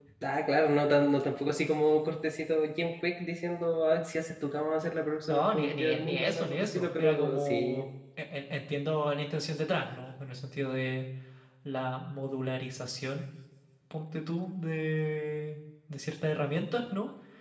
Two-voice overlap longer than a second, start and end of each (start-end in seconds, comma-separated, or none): 5.3-7.8